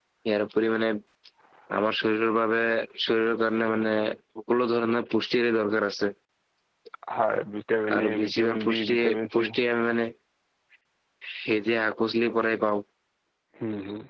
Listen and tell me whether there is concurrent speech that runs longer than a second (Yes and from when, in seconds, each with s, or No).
Yes, from 8.0 s